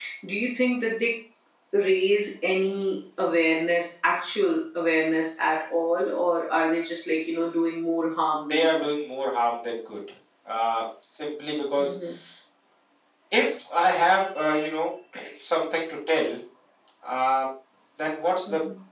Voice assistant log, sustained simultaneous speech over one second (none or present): none